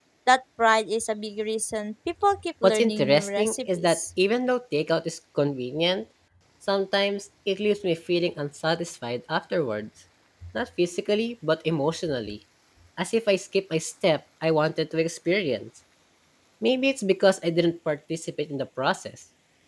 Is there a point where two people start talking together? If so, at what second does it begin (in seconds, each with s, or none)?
2.6 s